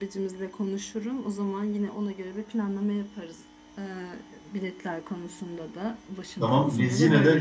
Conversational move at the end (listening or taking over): taking over